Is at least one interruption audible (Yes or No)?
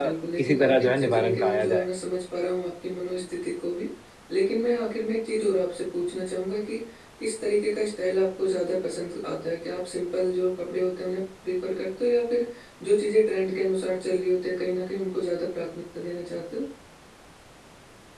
Yes